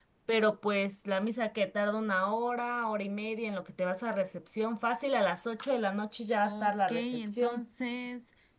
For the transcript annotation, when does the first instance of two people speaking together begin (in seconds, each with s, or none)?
6.4 s